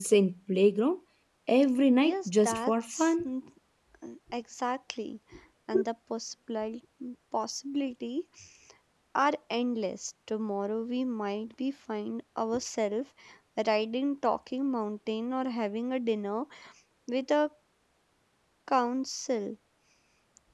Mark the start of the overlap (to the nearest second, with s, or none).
2 s